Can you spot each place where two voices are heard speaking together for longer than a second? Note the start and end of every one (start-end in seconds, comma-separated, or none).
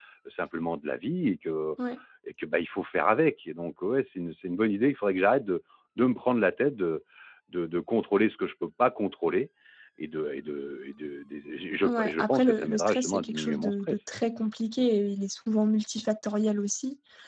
11.8-14.0